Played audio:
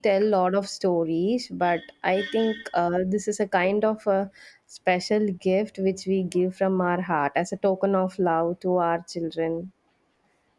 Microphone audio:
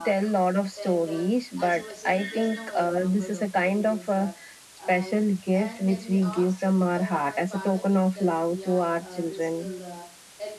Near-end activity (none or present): present